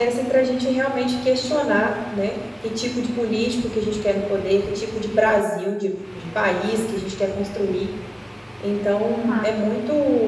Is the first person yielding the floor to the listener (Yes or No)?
No